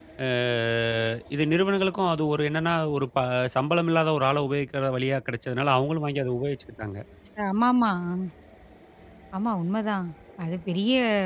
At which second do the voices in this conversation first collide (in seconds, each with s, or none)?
none